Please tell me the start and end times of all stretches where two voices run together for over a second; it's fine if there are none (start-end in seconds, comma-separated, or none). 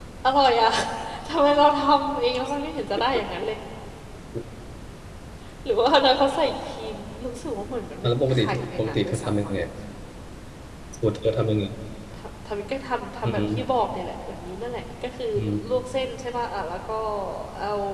8.0-9.5